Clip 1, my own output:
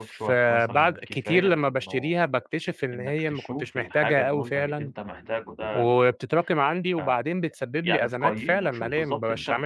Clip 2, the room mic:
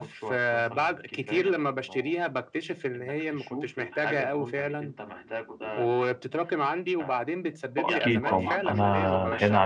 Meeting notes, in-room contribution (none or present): present